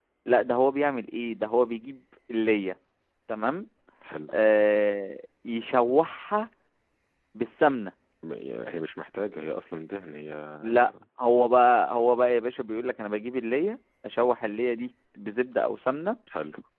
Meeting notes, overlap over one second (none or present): none